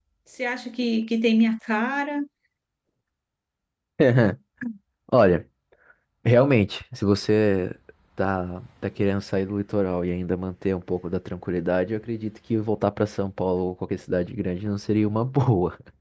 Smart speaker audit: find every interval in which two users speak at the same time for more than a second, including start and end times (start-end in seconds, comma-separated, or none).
none